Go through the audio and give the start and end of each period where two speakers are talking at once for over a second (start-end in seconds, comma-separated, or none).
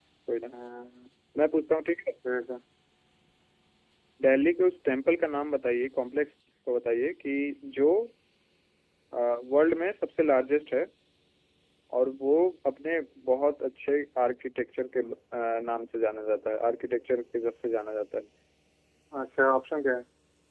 none